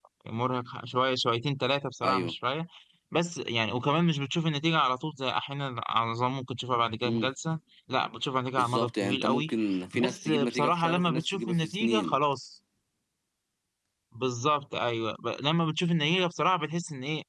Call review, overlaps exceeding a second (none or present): present